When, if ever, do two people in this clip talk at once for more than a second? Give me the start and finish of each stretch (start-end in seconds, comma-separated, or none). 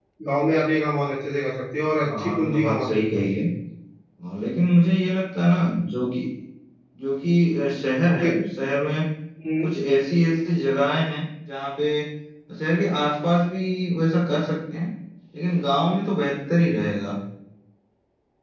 2.0-3.3